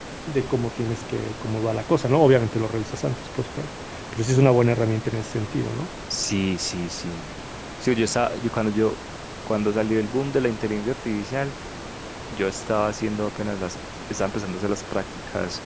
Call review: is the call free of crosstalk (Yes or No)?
Yes